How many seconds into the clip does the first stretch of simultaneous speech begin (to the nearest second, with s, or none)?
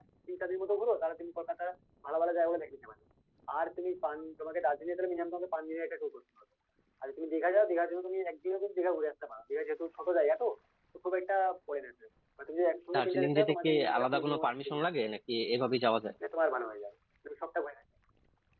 13 s